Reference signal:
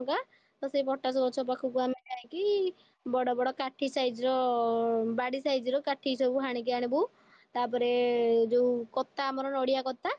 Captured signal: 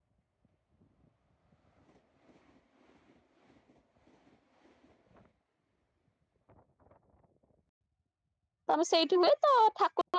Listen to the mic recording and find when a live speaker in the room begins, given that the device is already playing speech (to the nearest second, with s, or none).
9 s